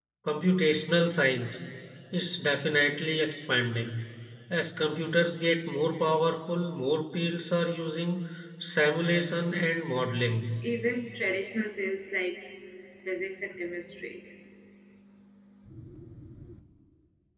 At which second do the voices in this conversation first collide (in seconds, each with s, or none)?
none